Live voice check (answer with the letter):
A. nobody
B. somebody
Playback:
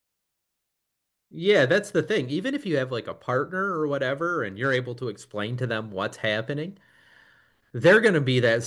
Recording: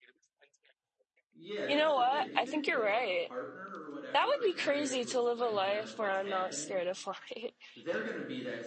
B